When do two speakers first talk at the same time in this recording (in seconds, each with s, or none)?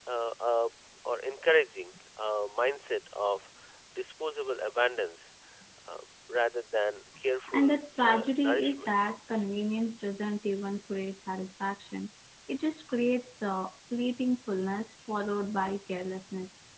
7.5 s